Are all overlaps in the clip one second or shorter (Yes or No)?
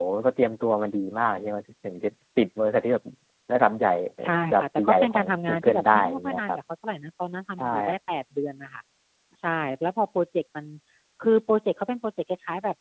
No